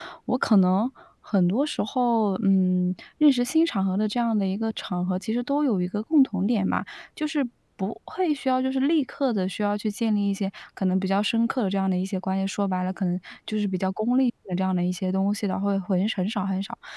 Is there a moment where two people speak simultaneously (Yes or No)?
No